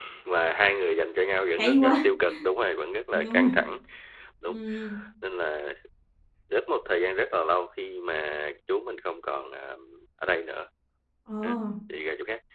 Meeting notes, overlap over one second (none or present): none